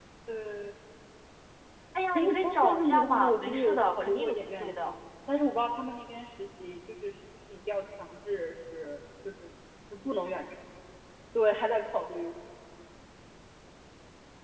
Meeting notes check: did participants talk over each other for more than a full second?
Yes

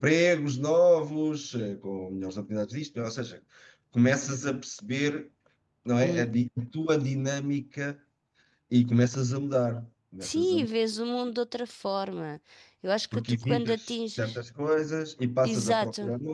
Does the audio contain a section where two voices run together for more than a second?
Yes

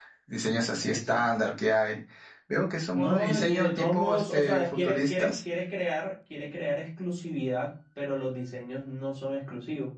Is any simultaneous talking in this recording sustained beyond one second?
Yes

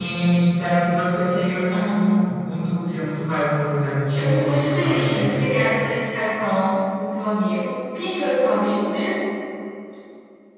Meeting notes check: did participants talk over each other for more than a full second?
Yes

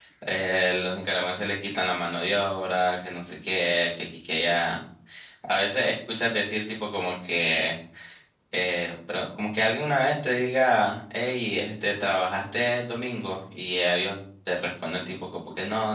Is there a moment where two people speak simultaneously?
No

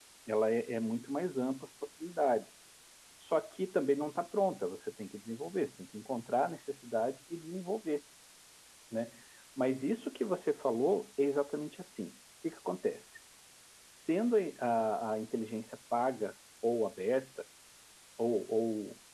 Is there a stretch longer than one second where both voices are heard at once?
No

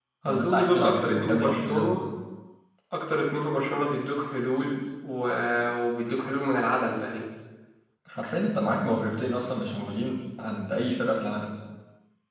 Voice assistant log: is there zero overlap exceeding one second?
No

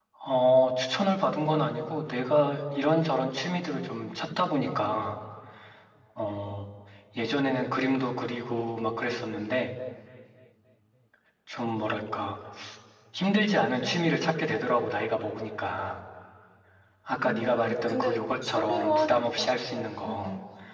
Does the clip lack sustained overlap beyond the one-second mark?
No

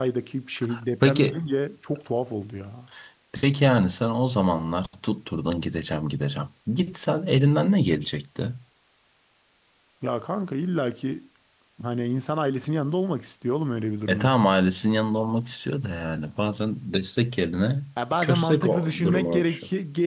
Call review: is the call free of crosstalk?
No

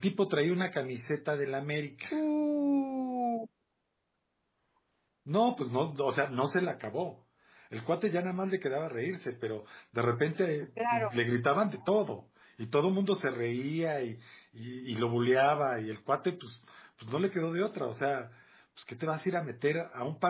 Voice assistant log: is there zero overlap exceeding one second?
Yes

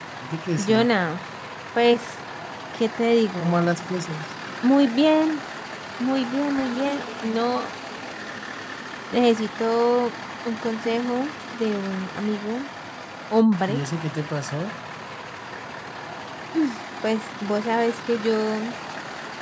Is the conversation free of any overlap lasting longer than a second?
Yes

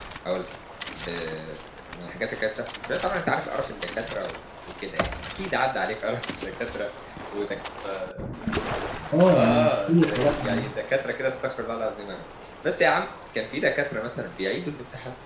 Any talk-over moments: Yes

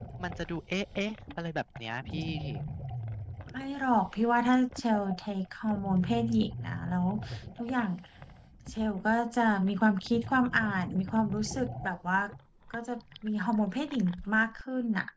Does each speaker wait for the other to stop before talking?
Yes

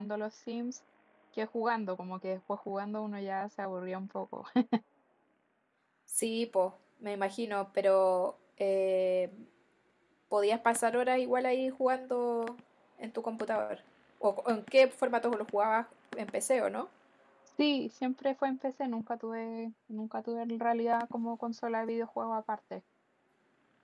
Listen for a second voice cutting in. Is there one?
No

